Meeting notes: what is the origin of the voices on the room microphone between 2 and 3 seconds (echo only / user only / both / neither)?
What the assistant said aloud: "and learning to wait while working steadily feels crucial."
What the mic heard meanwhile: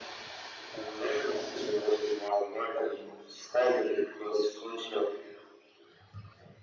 echo only